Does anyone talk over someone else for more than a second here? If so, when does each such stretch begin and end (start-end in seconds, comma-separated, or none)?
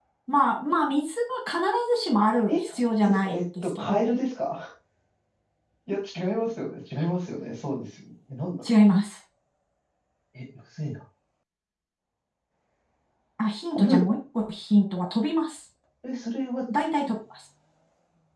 2.5-4.1